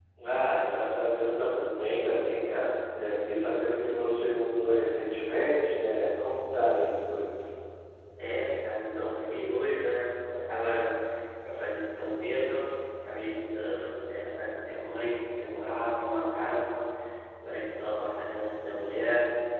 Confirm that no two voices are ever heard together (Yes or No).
Yes